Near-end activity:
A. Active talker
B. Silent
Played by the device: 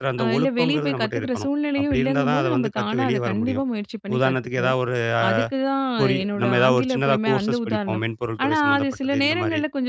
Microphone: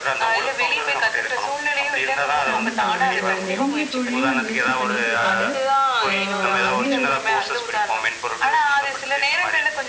A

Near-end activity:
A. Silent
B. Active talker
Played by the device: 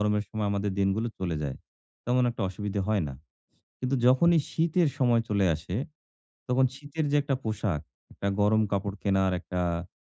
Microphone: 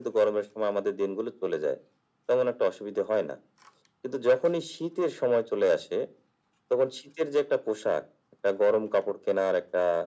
A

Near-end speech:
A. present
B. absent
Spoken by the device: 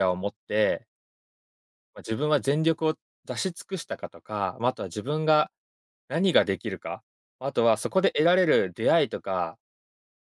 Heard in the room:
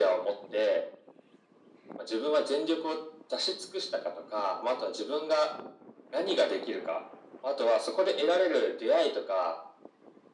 B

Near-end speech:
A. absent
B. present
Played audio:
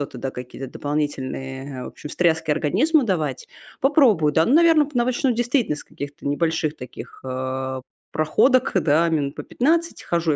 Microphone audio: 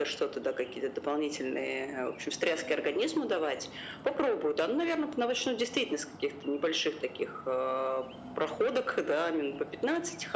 A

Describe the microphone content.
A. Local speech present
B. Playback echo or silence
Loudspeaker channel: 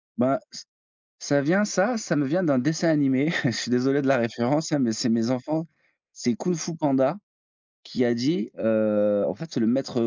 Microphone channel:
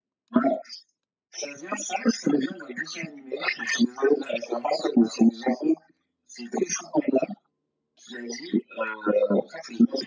B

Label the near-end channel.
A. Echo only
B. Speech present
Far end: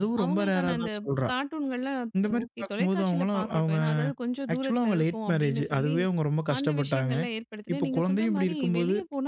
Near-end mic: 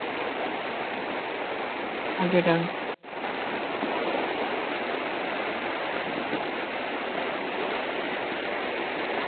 B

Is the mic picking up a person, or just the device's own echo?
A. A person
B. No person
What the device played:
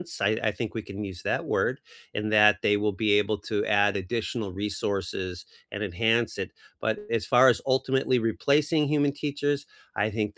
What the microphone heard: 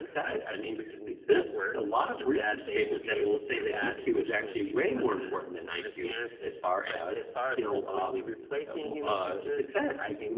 A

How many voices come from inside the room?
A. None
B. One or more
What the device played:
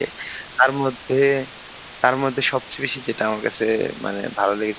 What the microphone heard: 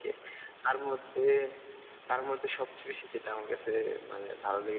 A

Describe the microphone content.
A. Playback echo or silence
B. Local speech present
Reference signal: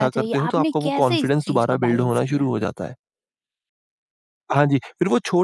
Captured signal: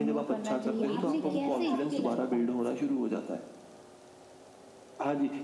B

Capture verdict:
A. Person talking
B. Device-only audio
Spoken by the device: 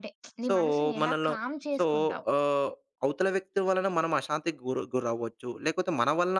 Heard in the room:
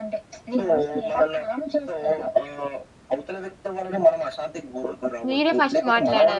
A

